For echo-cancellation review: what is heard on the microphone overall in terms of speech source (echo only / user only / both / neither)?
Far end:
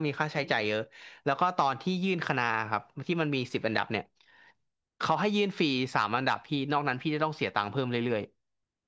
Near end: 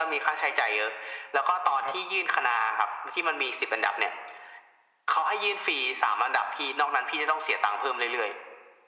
both